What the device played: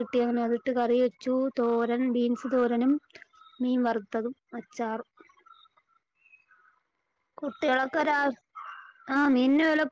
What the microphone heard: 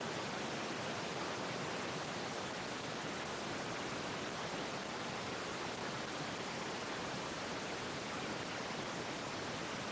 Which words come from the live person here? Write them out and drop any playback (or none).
none